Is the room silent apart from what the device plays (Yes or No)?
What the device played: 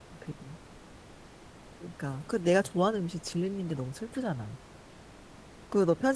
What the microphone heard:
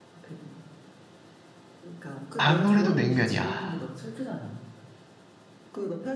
No